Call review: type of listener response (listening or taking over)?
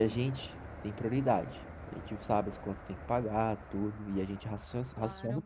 listening